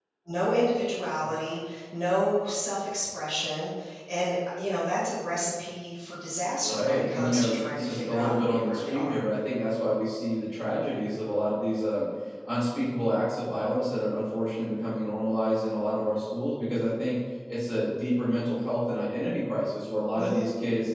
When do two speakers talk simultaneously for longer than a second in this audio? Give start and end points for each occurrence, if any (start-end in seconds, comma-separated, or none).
6.6-9.2